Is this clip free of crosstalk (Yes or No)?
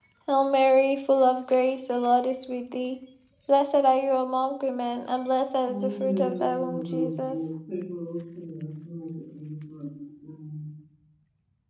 No